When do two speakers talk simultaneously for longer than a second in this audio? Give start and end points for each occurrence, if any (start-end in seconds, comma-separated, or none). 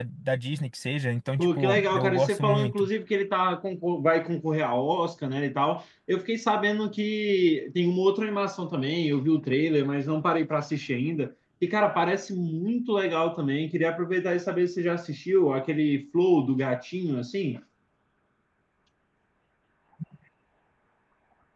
1.4-2.9